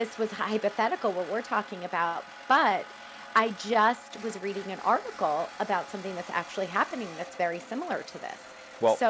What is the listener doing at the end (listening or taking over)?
listening